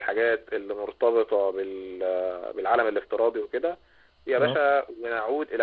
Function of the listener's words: listening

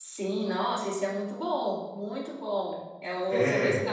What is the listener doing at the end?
listening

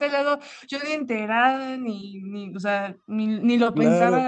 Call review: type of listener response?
taking over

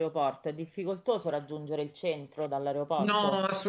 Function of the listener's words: taking over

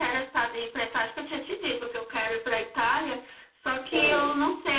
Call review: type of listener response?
listening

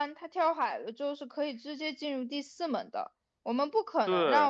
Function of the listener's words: listening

